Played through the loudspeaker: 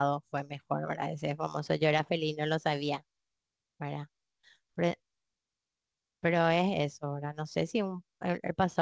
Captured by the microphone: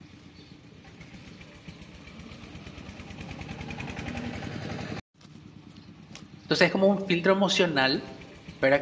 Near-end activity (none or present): present